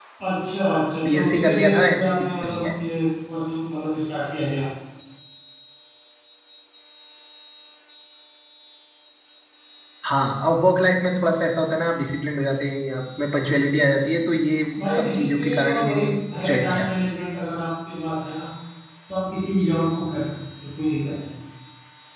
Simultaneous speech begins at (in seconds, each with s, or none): 1.1 s